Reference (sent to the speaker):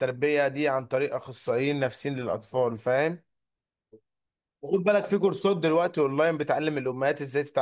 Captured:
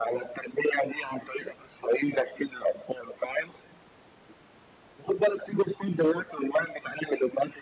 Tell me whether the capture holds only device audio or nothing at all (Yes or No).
Yes